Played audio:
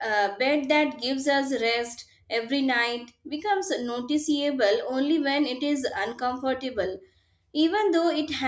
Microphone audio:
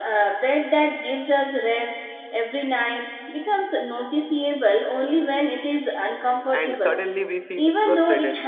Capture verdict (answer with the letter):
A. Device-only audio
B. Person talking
B